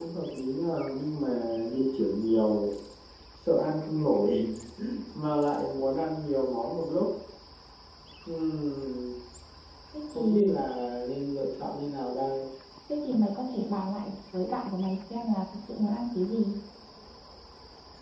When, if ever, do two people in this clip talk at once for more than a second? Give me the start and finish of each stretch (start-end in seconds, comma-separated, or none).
none